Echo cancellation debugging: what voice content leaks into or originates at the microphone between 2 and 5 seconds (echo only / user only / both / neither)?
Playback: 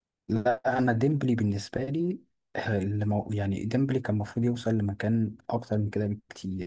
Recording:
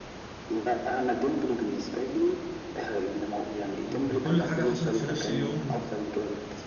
both